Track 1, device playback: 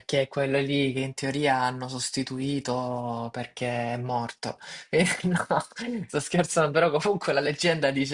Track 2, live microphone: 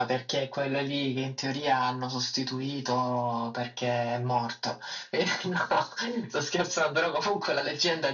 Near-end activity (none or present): none